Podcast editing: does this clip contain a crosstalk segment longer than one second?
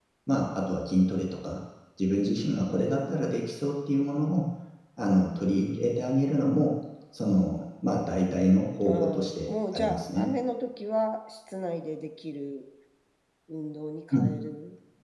Yes, from 8.8 s

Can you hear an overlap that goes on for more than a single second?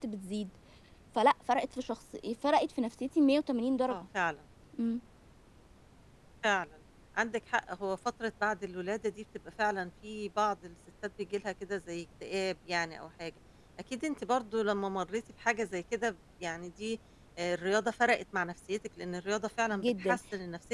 No

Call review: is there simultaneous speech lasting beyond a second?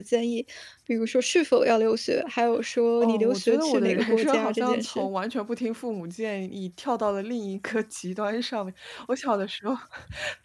Yes, from 3.0 s

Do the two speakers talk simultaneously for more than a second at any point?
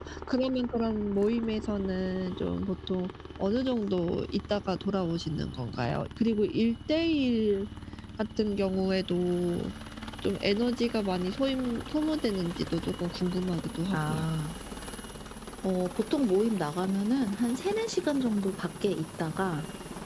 No

